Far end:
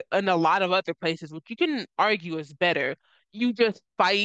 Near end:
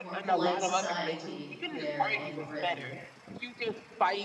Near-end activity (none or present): present